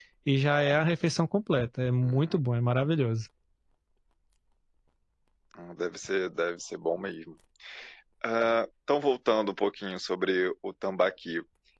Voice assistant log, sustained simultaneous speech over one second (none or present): none